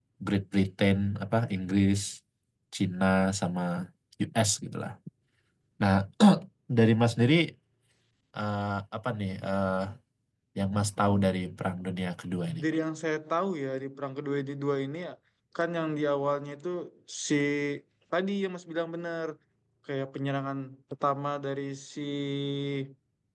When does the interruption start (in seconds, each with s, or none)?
none